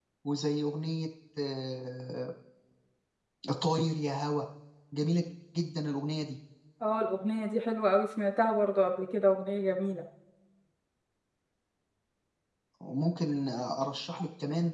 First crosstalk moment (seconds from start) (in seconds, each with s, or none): none